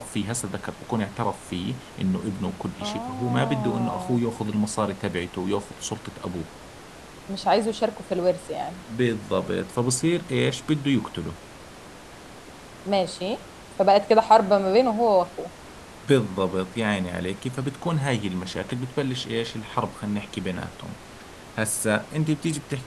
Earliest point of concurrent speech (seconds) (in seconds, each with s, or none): 2.8 s